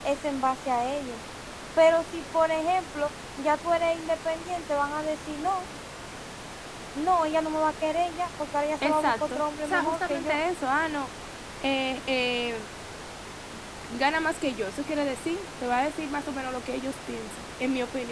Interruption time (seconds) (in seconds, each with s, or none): 8.8 s